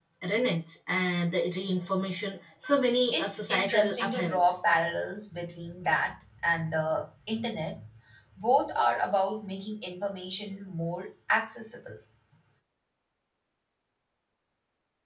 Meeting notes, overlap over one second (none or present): present